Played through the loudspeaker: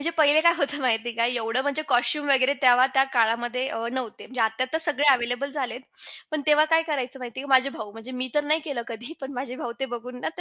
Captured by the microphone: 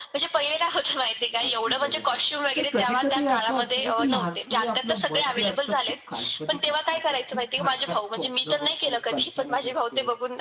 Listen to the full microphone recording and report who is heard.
both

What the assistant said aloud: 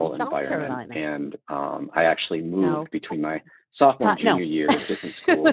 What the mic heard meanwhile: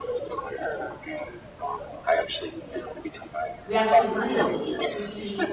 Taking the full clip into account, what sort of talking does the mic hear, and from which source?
both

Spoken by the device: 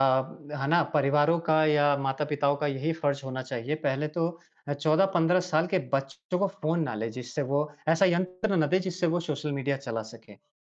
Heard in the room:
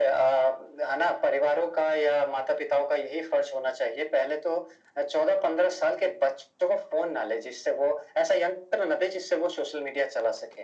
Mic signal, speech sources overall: echo only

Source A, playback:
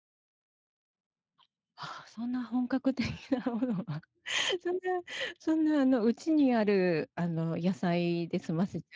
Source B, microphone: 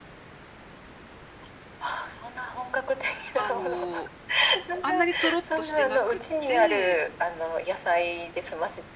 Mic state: both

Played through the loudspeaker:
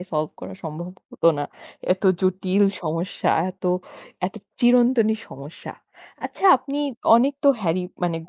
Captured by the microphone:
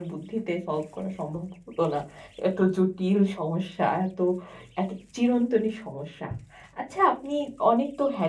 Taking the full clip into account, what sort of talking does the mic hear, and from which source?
echo only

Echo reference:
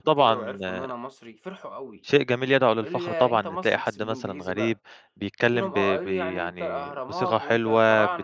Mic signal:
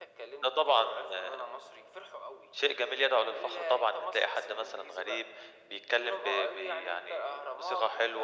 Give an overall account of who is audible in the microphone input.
echo only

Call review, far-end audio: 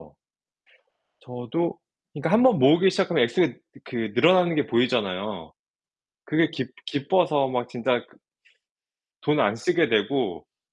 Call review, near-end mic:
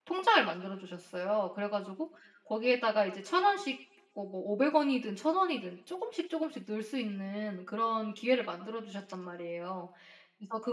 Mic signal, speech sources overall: user only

